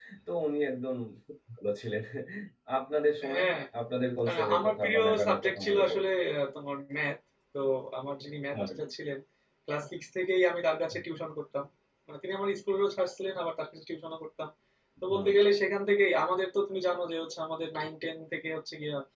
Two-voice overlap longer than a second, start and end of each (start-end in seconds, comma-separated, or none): 4.3-6.0